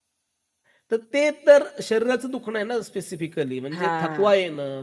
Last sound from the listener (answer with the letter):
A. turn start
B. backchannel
B